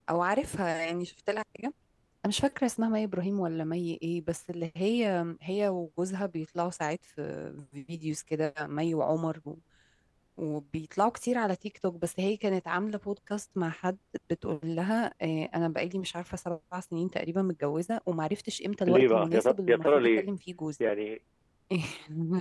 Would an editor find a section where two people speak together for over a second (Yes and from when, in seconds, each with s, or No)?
Yes, from 18.9 s